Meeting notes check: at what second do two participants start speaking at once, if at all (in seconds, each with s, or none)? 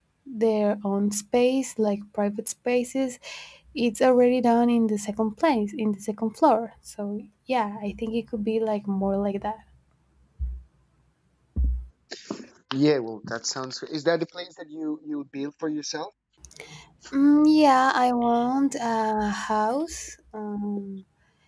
none